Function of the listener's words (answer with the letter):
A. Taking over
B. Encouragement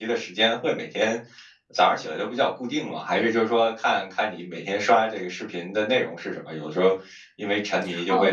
A